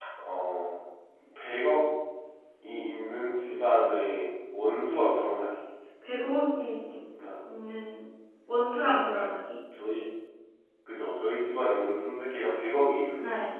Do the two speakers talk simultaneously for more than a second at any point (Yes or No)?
No